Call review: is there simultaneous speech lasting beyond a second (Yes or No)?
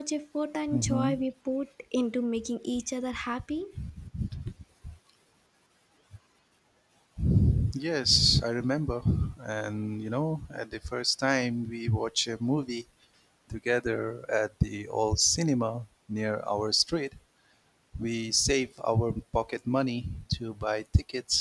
No